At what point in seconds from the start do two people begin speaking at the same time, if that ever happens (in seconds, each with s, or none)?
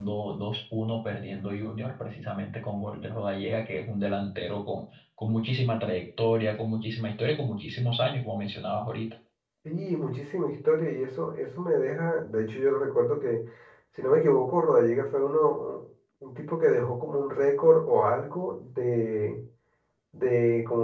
none